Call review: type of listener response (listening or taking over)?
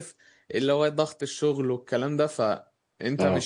listening